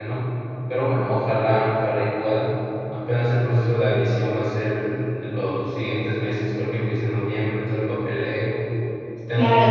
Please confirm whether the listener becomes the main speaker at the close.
Yes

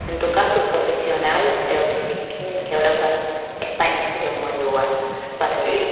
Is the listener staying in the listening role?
No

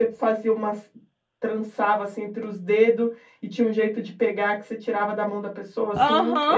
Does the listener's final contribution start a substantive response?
Yes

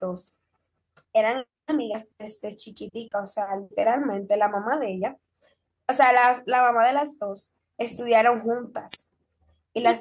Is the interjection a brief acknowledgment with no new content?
No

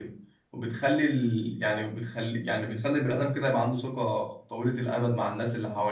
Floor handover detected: Yes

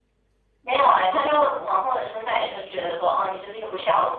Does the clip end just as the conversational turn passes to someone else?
Yes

